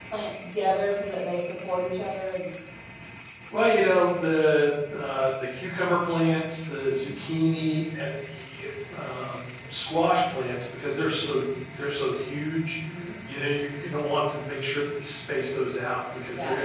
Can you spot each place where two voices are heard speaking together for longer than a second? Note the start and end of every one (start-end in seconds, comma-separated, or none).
none